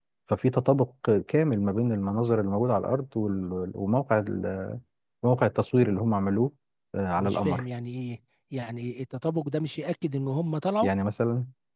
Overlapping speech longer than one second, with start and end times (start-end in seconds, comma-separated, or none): none